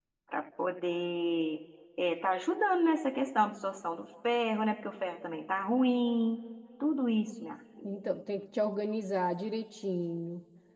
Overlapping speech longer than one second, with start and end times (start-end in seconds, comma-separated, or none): none